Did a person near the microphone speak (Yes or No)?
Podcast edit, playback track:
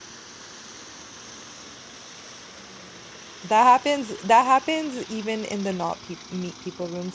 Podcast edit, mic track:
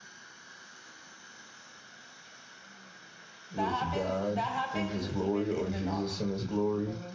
Yes